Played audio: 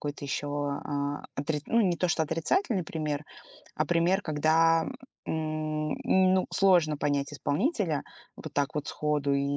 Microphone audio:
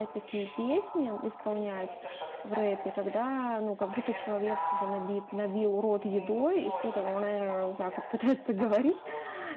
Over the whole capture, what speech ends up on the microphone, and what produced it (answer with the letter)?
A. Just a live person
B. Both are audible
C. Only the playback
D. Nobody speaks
B